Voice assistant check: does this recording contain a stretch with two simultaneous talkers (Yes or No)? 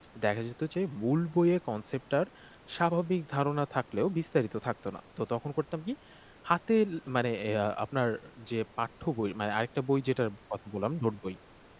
No